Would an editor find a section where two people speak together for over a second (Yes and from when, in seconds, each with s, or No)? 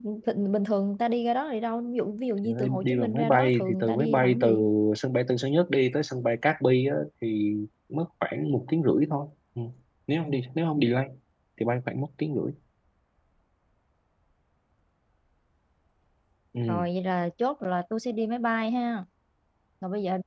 Yes, from 2.4 s